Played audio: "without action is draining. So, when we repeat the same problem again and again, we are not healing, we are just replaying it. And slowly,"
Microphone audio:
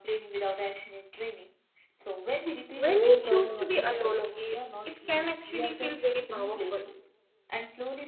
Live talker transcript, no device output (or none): when you choose to be alone okay it can actually feel very powerful